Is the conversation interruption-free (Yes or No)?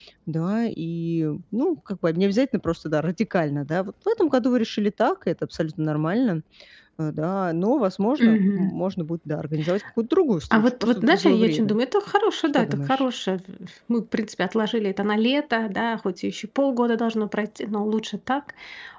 No